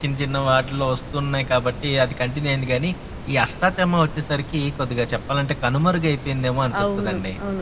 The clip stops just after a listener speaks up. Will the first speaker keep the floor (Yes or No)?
No